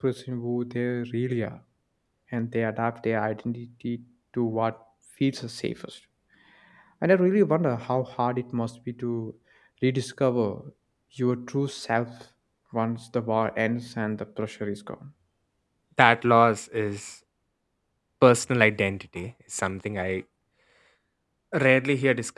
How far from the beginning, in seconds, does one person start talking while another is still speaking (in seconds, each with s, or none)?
none